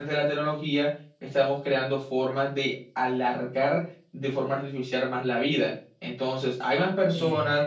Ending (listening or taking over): listening